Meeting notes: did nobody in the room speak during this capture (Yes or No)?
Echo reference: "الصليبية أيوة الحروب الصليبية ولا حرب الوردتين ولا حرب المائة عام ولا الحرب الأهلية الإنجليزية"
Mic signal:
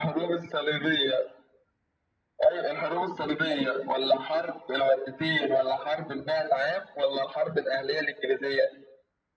Yes